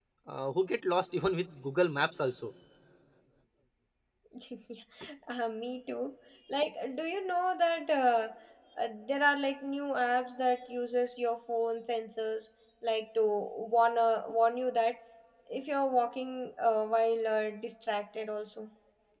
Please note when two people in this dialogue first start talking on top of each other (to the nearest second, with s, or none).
none